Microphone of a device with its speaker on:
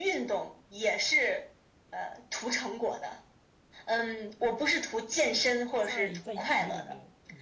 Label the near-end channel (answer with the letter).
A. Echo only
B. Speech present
B